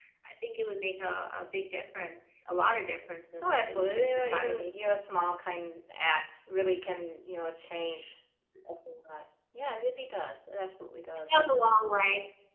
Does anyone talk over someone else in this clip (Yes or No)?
Yes